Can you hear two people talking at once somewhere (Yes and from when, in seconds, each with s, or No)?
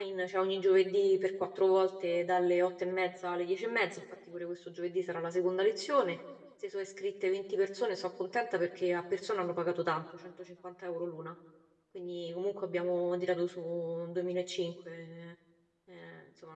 No